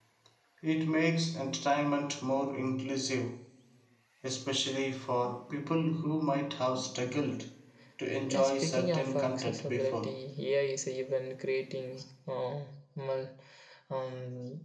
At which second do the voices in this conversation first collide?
8.3 s

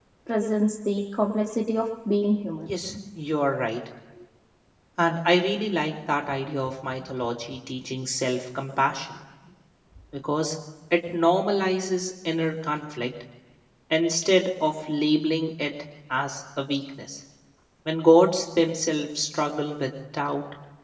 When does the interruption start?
none

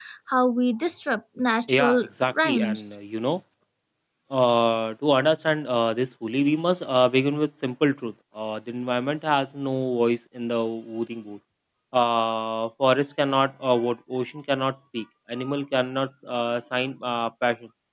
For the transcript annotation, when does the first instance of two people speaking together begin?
1.7 s

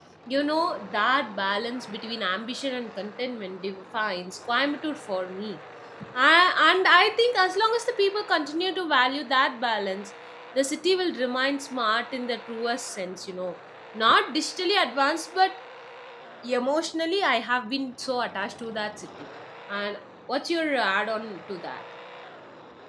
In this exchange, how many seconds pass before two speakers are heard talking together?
none

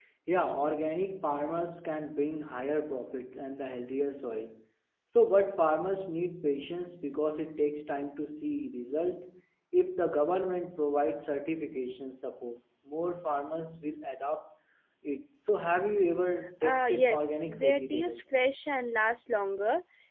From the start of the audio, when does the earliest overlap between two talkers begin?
16.6 s

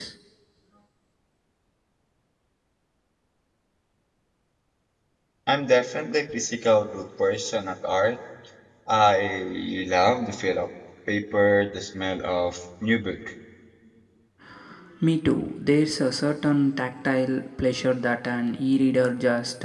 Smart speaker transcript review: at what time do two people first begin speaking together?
none

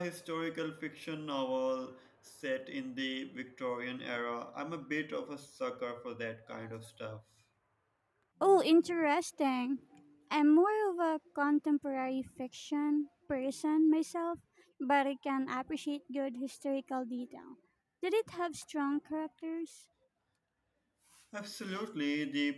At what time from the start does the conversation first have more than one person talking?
none

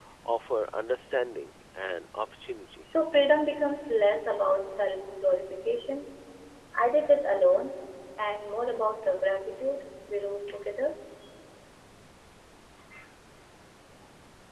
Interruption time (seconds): none

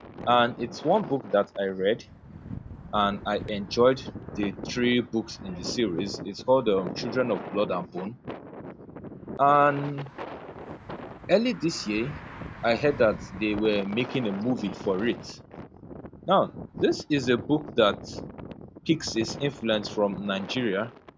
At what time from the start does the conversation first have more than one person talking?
none

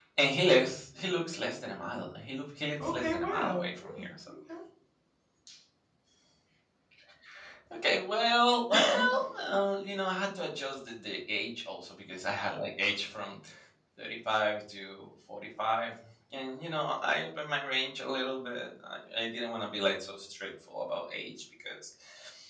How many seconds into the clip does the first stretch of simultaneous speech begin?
2.8 s

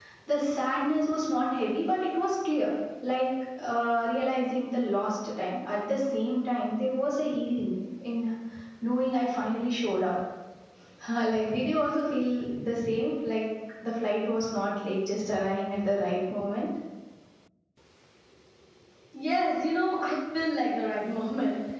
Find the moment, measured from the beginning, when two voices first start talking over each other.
none

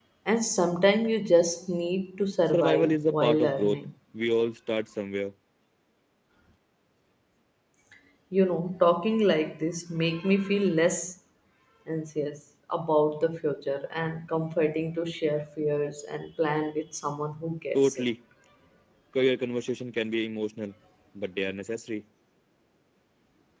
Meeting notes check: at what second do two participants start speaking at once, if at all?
2.5 s

